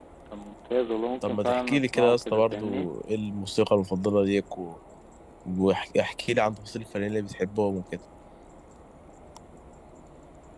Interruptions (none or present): present